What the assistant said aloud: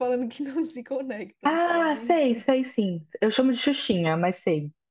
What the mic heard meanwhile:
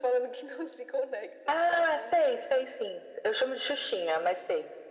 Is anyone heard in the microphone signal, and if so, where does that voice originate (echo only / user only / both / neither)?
echo only